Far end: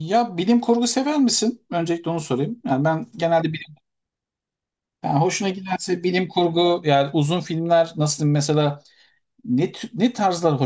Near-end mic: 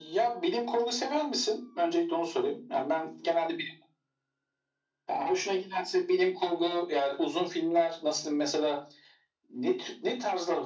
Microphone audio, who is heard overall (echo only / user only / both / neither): echo only